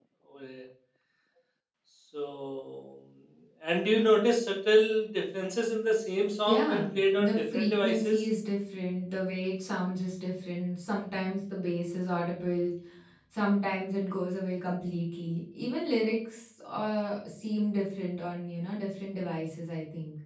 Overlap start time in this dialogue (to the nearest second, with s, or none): 6 s